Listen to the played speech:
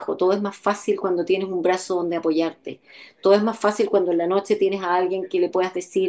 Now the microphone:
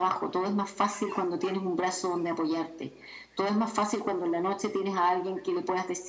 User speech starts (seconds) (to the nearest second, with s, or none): none